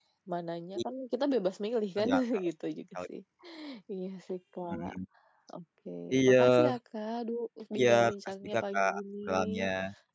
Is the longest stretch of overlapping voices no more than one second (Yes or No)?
No